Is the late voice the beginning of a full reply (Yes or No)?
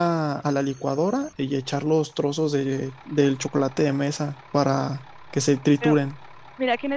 Yes